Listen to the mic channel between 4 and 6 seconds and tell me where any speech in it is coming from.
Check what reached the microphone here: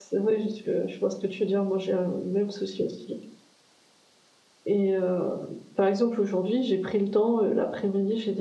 user only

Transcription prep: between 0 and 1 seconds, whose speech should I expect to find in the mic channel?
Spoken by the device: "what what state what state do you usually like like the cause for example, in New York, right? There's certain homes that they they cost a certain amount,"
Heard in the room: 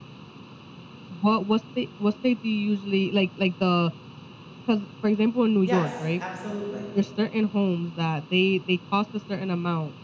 neither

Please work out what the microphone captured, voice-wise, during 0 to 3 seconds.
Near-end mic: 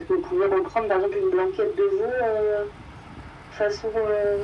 echo only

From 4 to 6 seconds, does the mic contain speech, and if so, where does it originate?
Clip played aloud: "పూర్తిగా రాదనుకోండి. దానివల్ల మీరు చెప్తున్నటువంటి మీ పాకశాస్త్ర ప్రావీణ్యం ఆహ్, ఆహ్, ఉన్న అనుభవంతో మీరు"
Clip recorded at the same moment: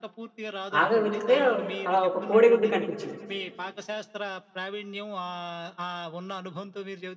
echo only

